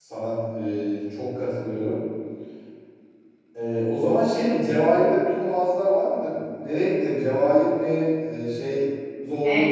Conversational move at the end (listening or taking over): taking over